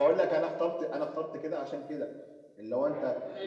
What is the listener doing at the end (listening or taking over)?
taking over